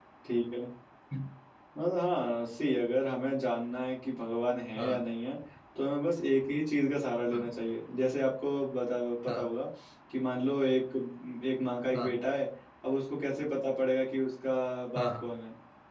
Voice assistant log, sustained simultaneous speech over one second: none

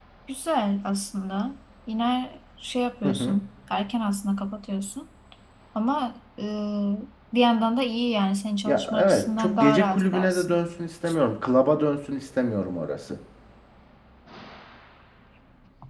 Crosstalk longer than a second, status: present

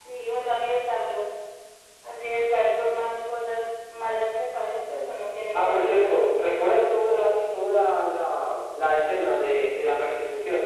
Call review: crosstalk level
present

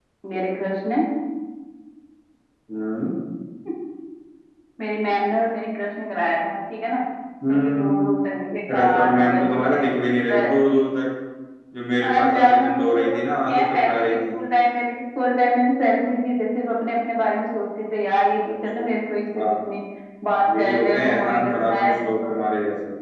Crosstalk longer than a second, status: present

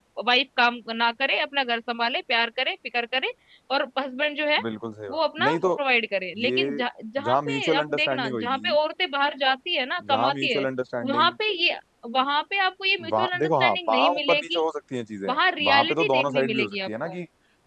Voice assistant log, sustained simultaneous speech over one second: present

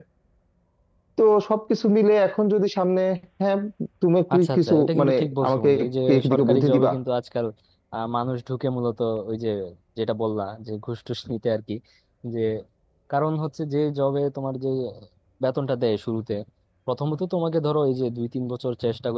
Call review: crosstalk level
present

